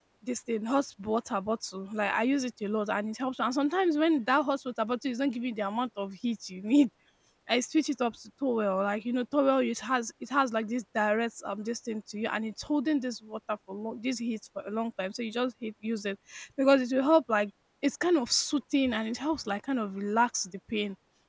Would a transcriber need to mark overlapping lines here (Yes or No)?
No